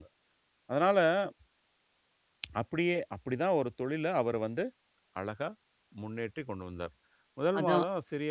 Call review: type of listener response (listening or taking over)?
listening